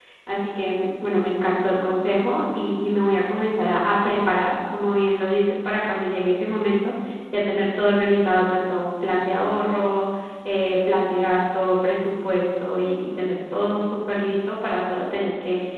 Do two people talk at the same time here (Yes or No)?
No